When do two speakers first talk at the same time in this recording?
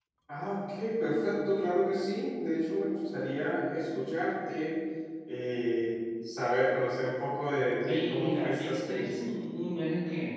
7.8 s

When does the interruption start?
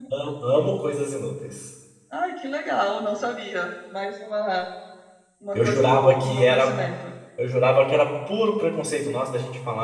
5.6 s

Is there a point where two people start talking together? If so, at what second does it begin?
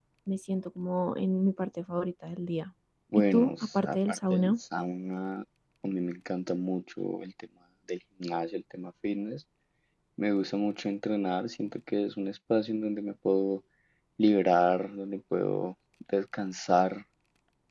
3.2 s

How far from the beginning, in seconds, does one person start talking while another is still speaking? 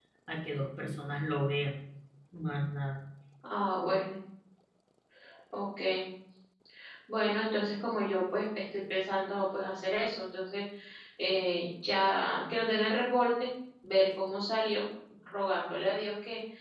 none

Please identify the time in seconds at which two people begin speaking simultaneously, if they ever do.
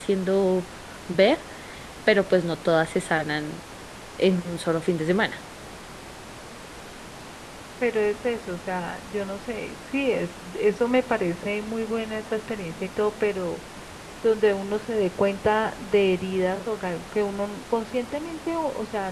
none

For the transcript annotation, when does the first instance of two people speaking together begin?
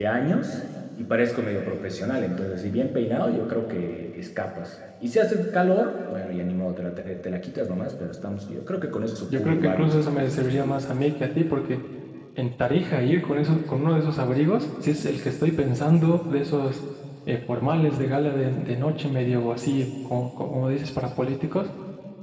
9.3 s

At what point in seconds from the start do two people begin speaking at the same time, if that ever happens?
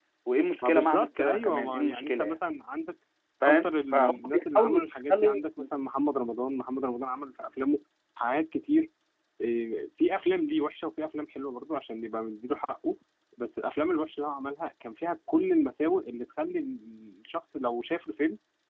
0.6 s

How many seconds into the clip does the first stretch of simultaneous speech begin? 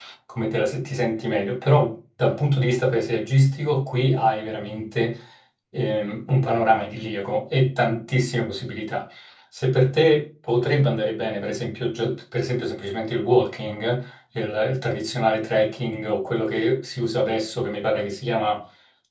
none

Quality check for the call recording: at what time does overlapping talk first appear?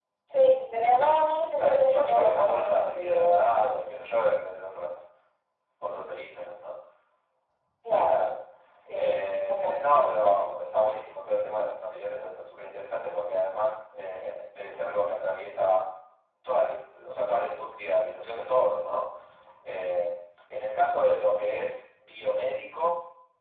1.5 s

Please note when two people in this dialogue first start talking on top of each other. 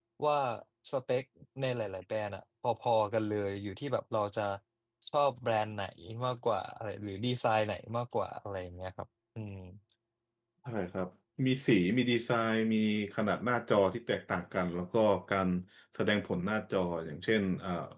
none

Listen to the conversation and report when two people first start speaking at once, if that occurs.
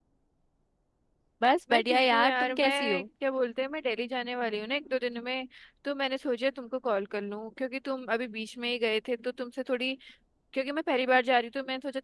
1.7 s

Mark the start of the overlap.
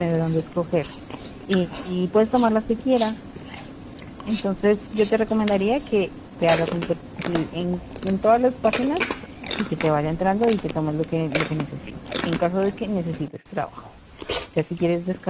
none

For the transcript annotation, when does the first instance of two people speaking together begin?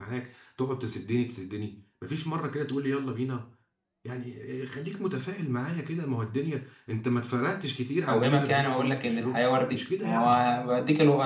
8.1 s

